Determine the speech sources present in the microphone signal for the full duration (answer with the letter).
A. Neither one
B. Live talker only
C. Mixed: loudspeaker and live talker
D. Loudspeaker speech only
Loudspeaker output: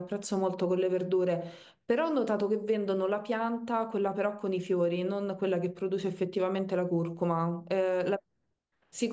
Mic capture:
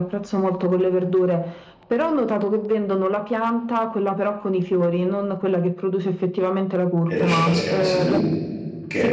C